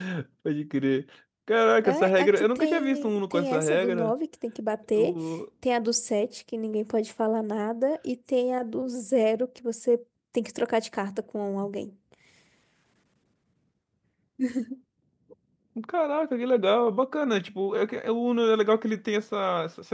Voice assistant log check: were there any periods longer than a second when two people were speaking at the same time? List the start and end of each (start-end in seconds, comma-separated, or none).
1.8-4.1